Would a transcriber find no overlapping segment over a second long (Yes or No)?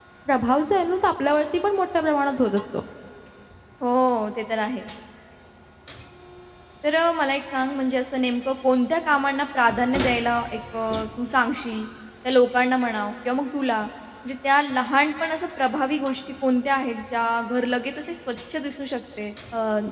Yes